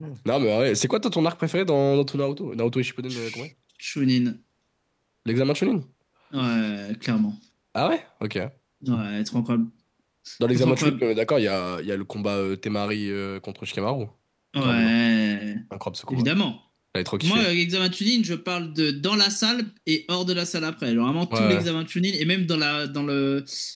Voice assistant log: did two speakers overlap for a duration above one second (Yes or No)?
No